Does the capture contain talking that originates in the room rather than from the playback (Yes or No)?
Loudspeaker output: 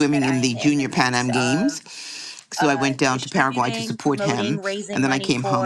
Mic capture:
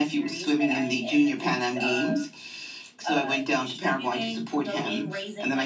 No